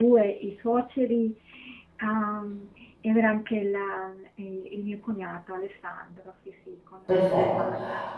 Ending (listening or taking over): taking over